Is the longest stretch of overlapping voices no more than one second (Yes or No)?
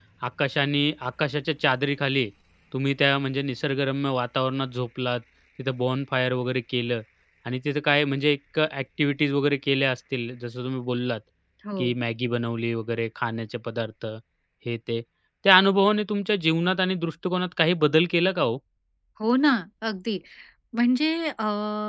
Yes